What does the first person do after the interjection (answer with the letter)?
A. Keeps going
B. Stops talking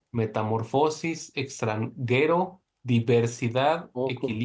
A